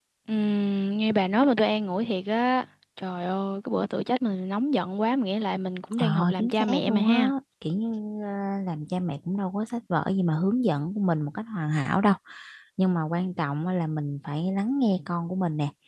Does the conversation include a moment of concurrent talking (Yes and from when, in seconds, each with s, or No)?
Yes, from 5.9 s